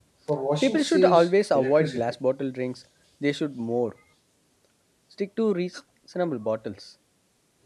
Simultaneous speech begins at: 0.6 s

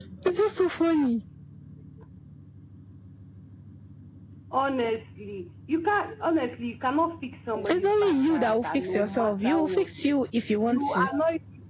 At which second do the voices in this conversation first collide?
7.5 s

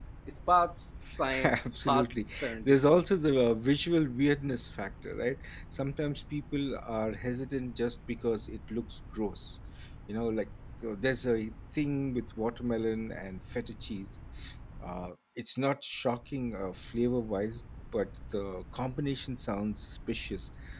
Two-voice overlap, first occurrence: 1.4 s

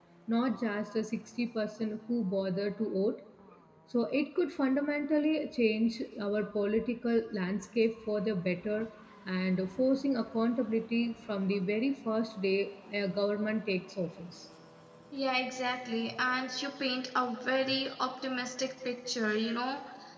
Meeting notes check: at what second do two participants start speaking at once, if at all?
none

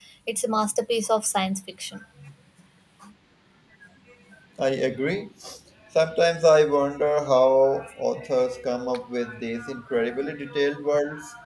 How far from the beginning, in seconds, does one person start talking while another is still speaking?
none

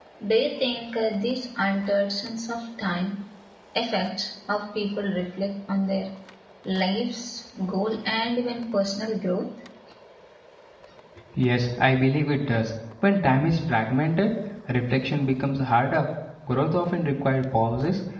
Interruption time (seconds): none

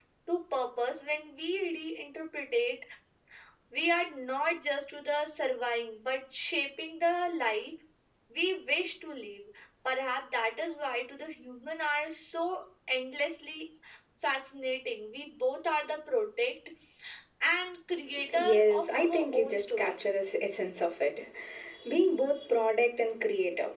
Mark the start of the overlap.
18.2 s

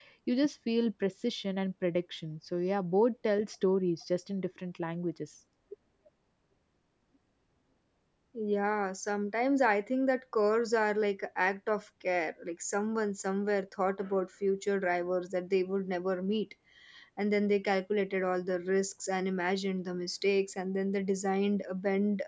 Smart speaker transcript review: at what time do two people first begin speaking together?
none

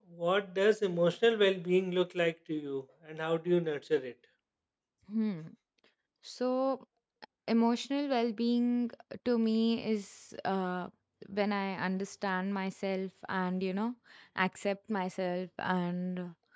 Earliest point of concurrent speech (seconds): none

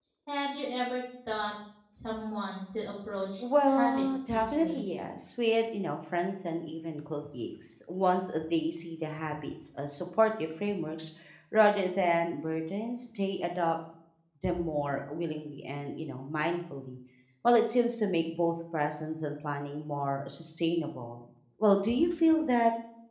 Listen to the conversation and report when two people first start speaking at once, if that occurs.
3.4 s

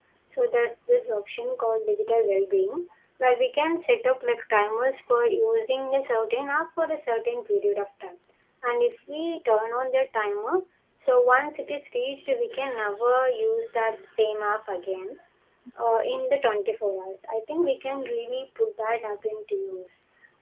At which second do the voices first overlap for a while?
none

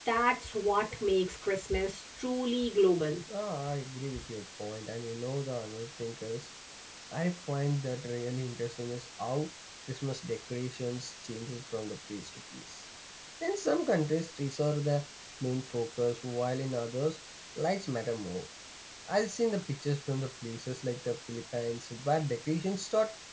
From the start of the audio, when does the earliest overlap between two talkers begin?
none

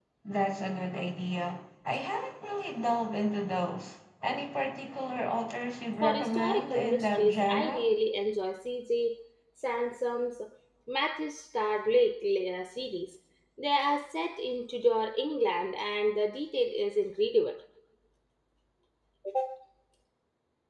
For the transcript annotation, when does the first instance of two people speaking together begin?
6.0 s

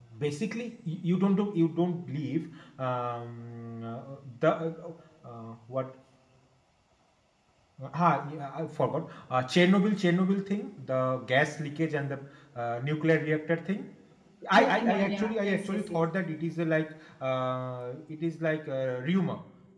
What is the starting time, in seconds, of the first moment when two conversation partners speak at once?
14.5 s

